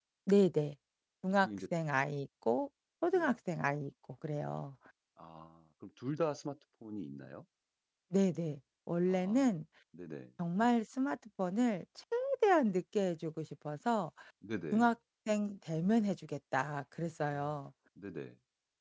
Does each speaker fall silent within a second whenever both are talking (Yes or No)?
Yes